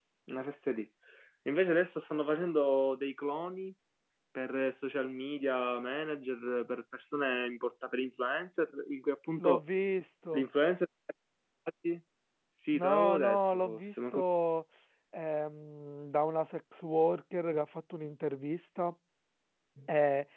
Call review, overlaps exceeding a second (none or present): present